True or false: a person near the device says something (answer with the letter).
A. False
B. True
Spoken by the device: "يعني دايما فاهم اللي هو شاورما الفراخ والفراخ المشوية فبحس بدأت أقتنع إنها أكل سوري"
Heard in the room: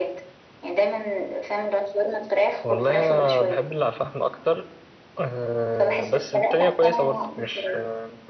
B